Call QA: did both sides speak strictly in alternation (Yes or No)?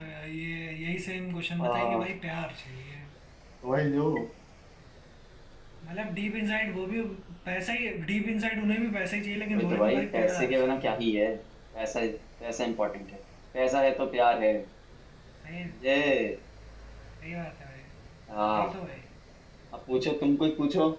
No